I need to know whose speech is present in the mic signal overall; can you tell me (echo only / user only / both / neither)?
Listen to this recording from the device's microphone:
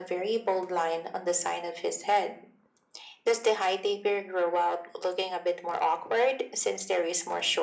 echo only